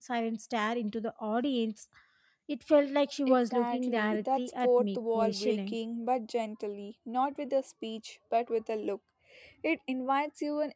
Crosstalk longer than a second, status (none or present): present